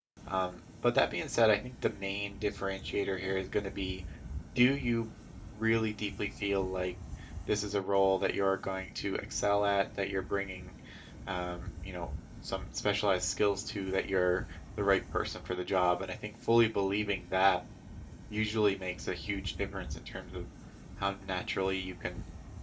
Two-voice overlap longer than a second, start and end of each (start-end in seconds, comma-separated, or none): none